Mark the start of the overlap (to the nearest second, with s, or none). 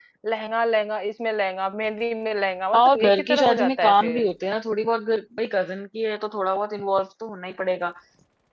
3 s